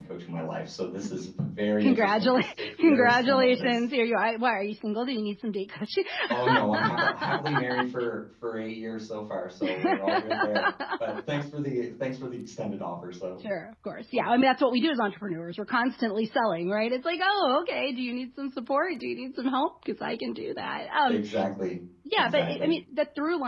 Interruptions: present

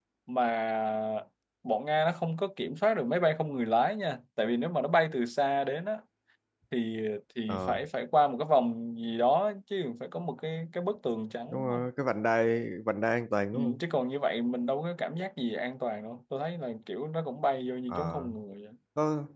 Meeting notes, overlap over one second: none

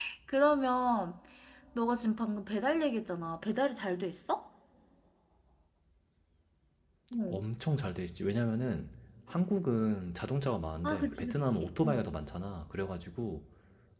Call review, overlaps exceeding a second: present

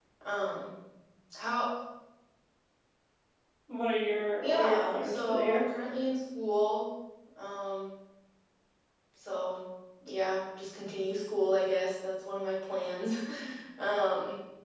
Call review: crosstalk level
present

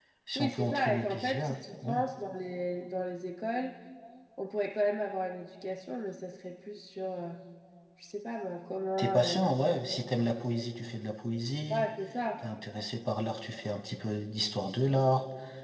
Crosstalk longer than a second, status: present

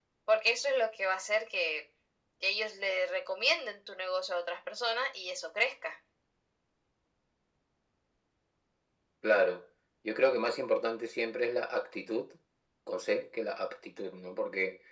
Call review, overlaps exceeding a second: none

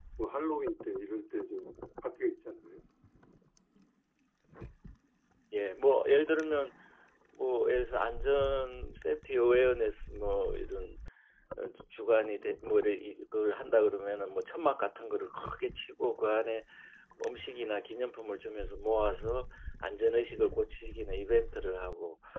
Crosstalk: none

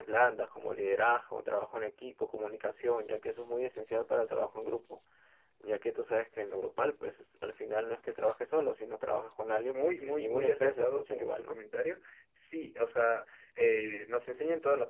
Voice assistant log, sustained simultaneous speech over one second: present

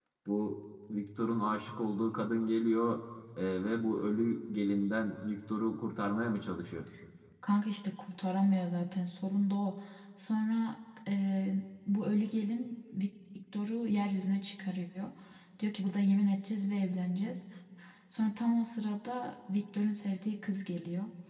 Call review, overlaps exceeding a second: none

